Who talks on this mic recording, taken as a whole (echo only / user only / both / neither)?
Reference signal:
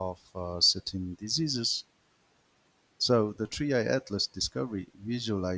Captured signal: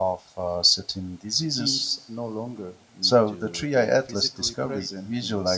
both